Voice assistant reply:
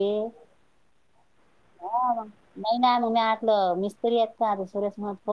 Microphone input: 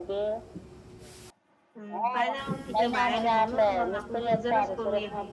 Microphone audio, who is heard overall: both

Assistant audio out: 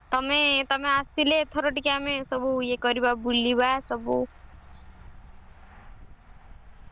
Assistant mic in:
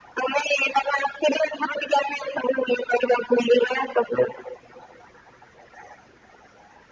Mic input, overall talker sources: echo only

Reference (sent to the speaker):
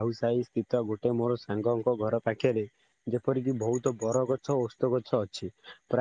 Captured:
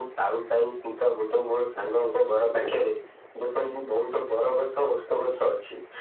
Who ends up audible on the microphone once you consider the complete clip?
echo only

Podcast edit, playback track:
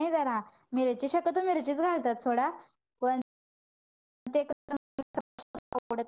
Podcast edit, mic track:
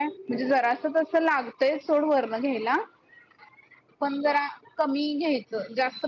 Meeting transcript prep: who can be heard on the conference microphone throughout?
user only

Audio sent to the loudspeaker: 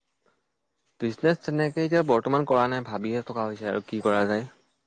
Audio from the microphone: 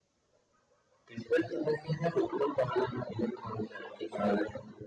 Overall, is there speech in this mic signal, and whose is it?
echo only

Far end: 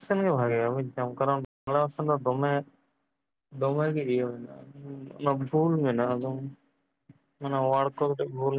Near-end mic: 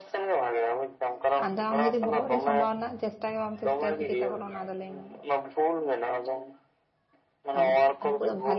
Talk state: both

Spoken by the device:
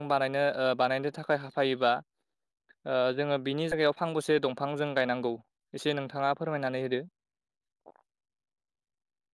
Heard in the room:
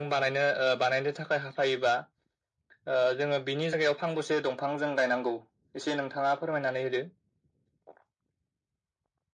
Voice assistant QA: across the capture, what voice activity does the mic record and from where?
echo only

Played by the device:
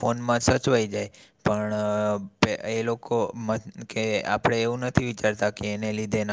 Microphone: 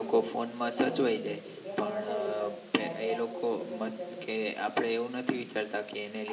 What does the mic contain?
both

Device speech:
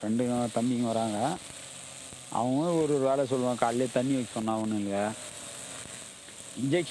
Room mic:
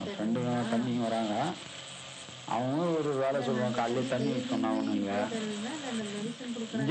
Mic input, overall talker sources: both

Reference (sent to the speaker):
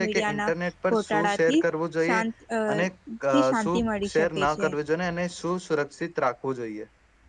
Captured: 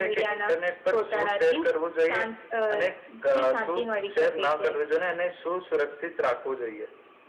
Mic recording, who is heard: echo only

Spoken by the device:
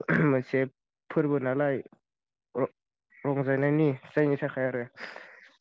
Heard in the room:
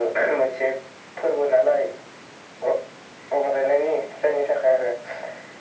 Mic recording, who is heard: echo only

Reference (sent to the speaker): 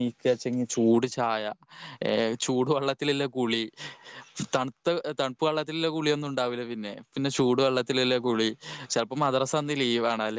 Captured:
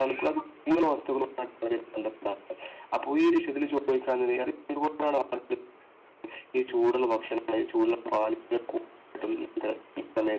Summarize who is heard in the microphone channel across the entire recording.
user only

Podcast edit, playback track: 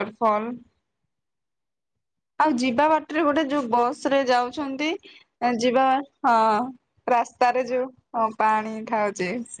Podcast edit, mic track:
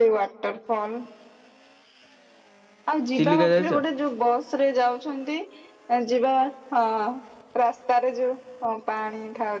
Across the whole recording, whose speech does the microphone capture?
both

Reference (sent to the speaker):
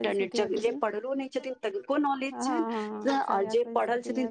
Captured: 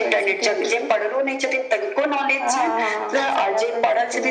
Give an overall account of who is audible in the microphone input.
echo only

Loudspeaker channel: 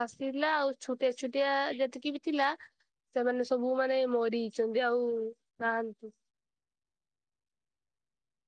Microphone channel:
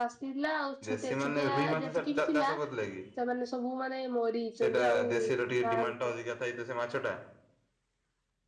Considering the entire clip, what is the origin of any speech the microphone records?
both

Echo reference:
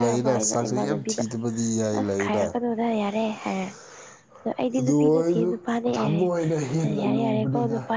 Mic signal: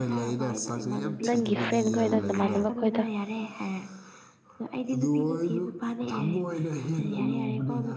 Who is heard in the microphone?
both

